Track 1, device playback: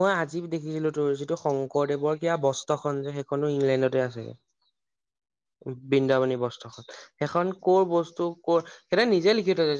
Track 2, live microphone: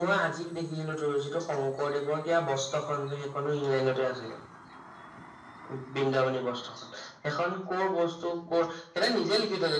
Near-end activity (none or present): none